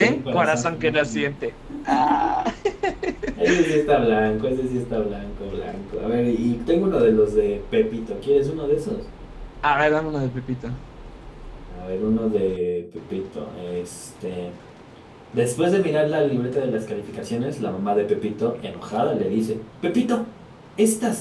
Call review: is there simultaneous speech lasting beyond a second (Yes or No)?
Yes